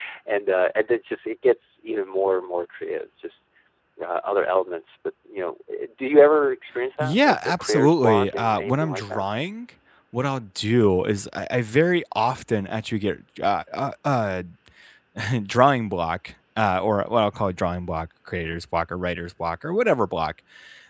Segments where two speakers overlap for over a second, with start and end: 7.0-9.2

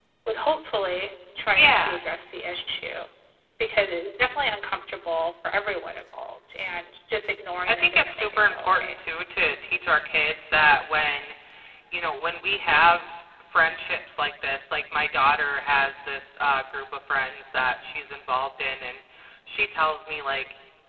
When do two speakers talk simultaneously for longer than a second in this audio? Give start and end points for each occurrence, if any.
7.7-9.0

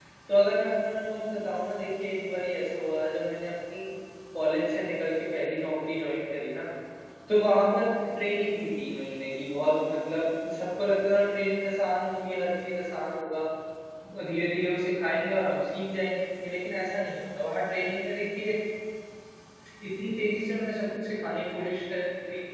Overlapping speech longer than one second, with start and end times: none

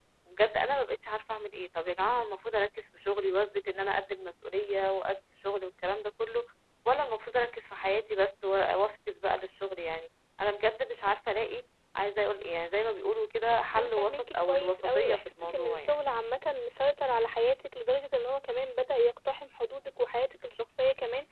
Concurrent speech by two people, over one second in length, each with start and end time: 13.8-16.0

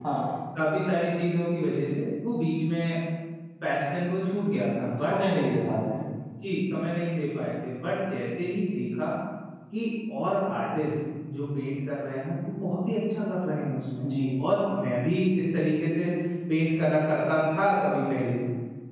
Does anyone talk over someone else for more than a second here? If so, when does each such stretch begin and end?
none

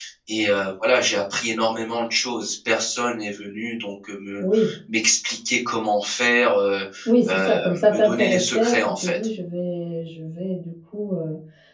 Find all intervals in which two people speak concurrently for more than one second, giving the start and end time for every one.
7.3-9.2

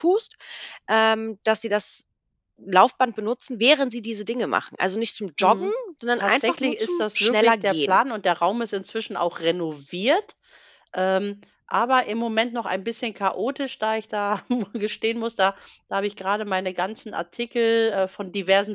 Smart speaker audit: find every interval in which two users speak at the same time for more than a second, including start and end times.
6.1-8.0

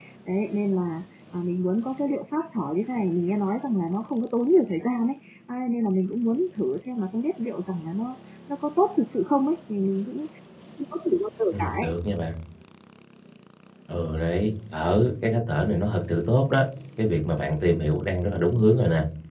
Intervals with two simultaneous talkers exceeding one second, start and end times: none

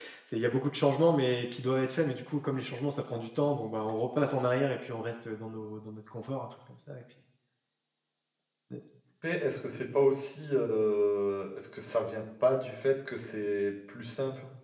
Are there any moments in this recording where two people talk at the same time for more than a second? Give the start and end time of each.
none

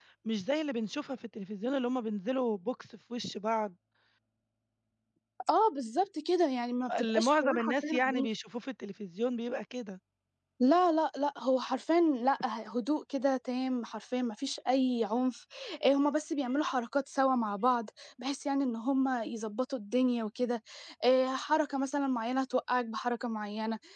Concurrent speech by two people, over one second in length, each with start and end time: 7.0-8.3

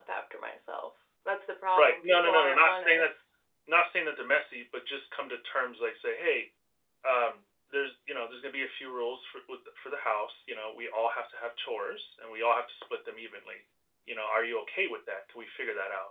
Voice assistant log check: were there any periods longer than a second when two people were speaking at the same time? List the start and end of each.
1.8-3.1

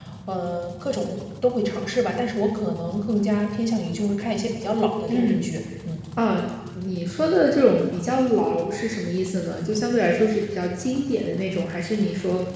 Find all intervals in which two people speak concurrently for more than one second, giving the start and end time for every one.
none

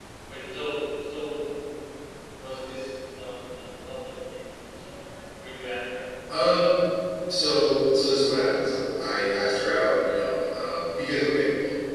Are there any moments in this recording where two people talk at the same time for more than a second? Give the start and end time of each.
none

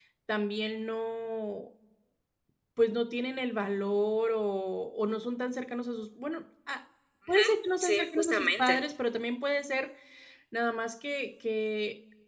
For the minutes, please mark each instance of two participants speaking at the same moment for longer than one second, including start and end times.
7.3-8.8

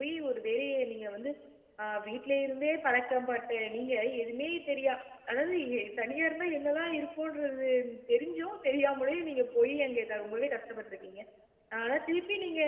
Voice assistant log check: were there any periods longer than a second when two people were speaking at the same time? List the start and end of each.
none

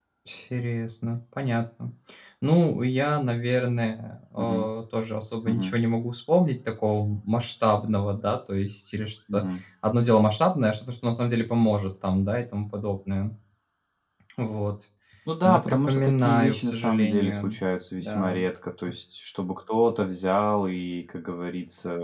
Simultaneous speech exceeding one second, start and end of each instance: 15.4-17.6

